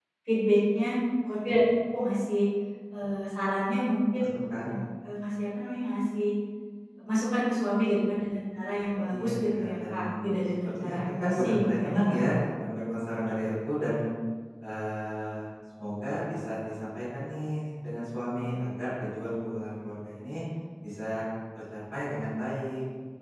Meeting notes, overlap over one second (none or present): present